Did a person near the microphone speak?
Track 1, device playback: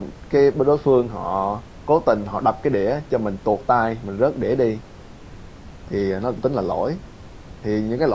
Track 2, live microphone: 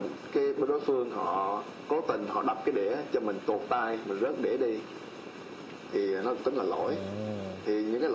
Yes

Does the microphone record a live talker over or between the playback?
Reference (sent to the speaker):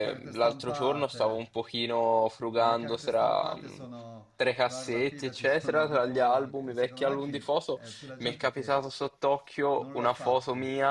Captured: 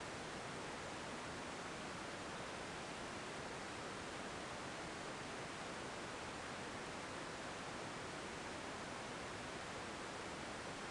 No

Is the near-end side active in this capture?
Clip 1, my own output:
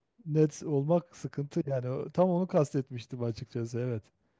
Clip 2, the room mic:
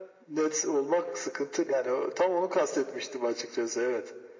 No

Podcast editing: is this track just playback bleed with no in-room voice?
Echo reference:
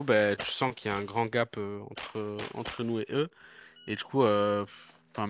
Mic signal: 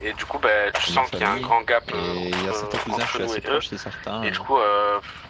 No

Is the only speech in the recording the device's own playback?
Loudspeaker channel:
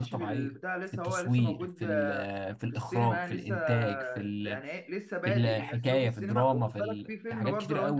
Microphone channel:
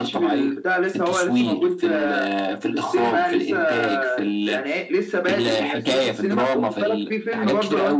Yes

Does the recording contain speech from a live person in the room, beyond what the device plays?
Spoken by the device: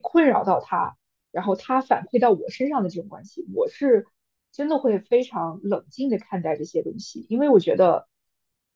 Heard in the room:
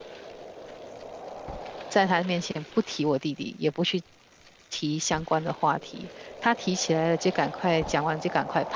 Yes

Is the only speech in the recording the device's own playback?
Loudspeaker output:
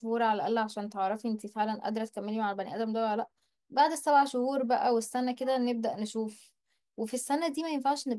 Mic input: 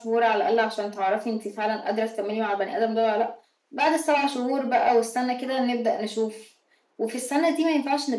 Yes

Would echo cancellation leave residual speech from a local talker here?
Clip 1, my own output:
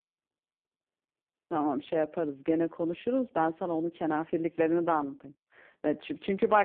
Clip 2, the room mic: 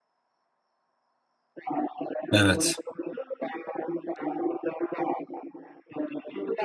Yes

